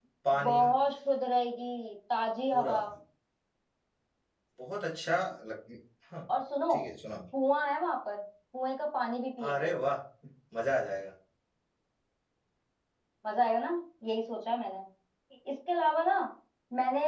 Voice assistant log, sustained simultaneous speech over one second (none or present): none